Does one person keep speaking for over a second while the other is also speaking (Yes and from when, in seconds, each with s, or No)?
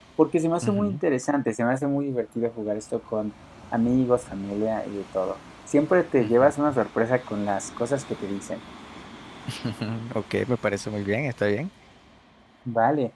No